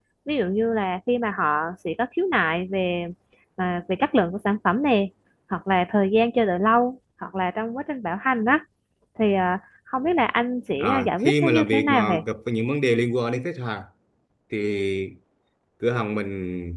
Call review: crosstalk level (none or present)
present